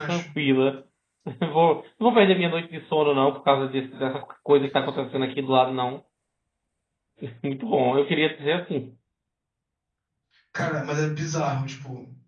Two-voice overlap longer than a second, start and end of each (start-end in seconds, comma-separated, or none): none